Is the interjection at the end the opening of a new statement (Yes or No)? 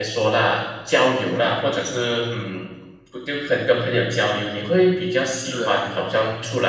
No